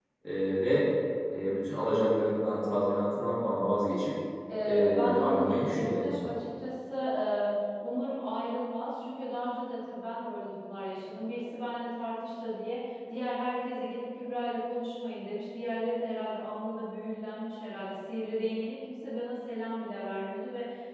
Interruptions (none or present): present